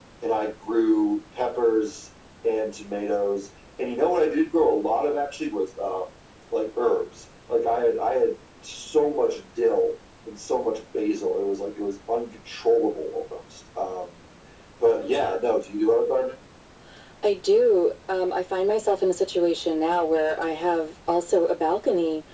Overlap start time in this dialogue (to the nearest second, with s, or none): none